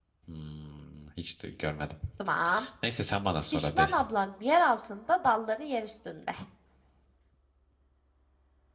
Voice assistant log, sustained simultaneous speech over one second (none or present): none